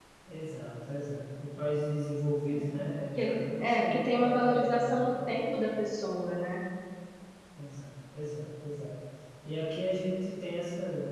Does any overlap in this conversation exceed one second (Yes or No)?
Yes